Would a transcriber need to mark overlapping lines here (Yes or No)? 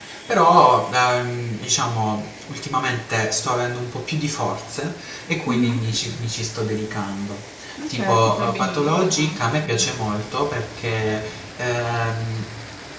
Yes